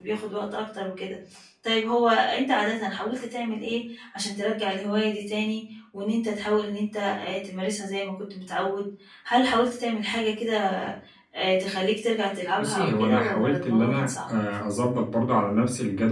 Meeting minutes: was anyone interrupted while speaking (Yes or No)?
Yes